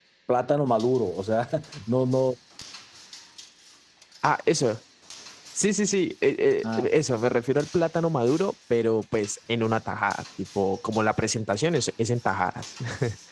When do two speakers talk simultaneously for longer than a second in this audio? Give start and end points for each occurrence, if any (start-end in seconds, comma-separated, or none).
none